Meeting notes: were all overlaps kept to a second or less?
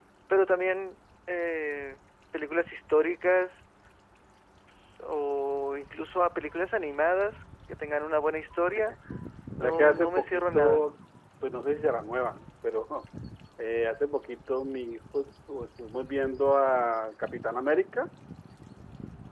No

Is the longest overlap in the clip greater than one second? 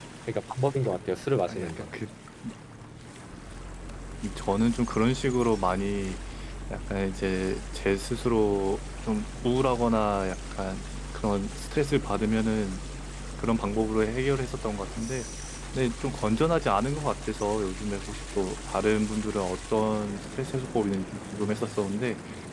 No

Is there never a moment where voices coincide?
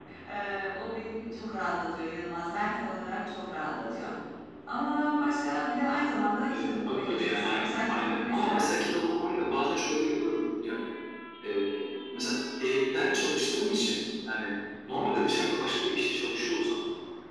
No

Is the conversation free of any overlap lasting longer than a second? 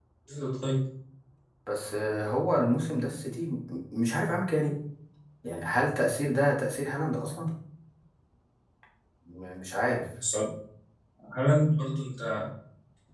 Yes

